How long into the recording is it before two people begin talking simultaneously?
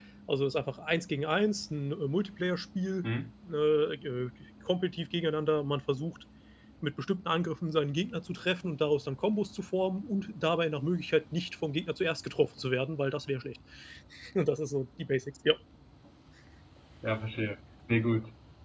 none

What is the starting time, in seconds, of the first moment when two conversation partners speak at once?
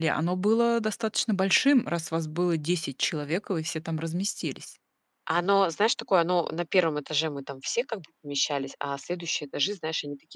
none

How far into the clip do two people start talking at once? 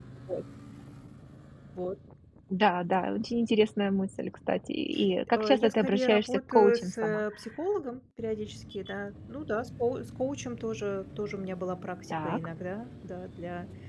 5.3 s

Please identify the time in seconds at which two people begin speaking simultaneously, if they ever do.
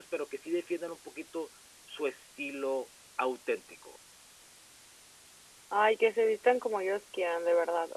none

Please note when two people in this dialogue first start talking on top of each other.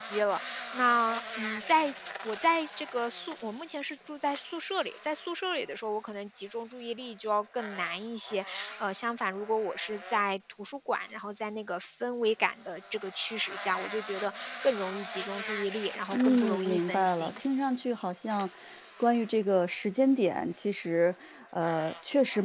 16.1 s

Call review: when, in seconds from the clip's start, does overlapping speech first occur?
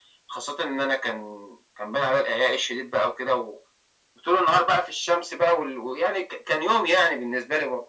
none

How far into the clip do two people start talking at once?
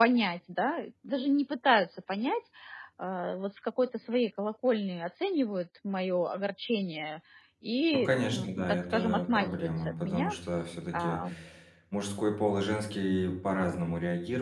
7.9 s

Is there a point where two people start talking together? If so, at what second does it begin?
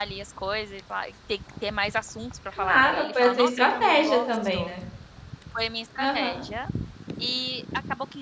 2.5 s

